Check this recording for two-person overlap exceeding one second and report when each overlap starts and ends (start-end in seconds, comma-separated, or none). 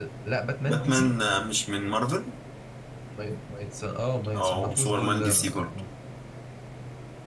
4.4-5.7